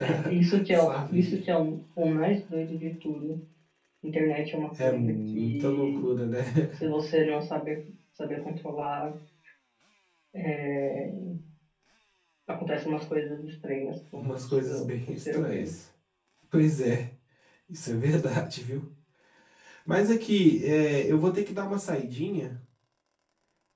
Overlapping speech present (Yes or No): Yes